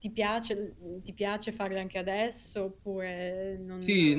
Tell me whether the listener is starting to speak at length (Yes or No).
Yes